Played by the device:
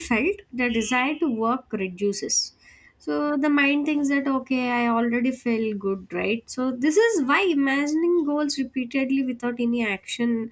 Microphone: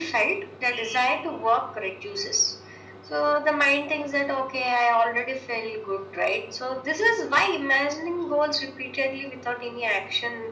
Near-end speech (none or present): none